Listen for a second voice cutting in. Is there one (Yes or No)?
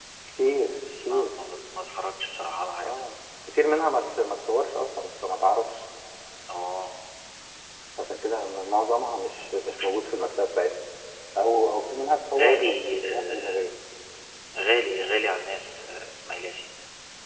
Yes